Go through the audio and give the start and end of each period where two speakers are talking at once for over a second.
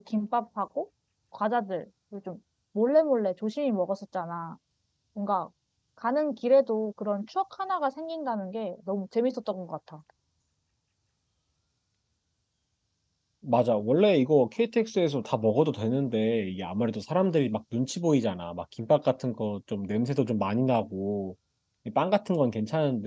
none

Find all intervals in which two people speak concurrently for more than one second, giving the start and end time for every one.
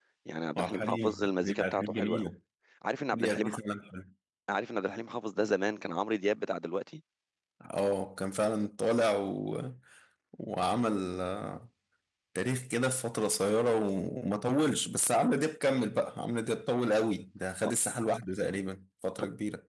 0.6-2.3

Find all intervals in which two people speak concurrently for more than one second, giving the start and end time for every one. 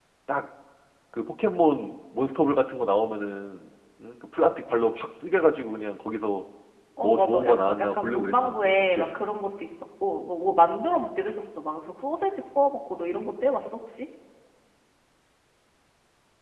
7.0-9.2

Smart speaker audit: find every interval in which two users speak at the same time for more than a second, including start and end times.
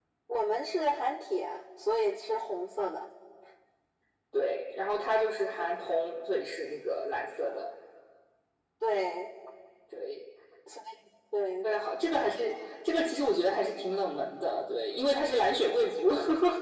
none

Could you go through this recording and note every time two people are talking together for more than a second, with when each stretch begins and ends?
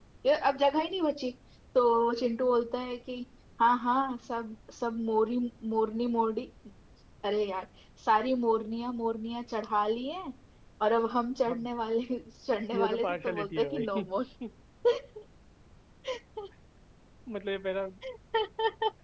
12.7-14.0

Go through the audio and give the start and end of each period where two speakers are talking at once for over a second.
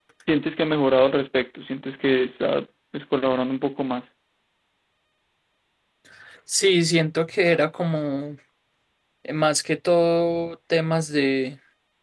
none

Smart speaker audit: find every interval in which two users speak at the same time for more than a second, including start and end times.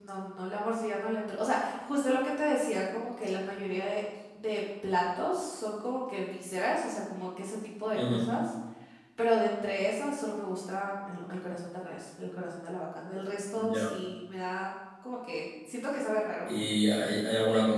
none

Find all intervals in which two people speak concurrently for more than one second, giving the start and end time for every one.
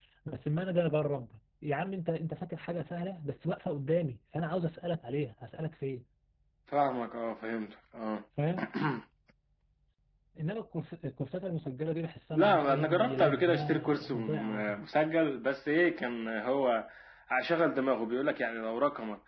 12.3-14.8

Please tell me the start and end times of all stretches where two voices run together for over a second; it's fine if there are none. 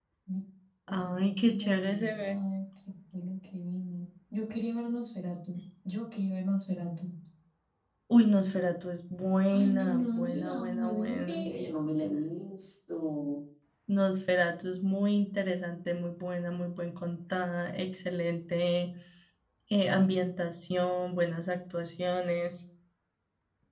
0.9-2.4, 9.5-11.4

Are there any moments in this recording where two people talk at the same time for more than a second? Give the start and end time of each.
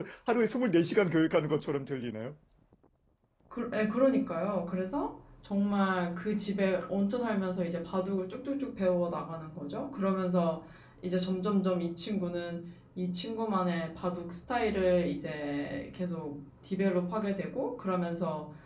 none

